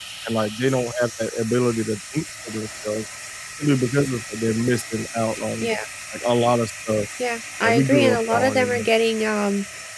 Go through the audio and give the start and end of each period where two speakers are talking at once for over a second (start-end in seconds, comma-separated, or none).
7.6-8.9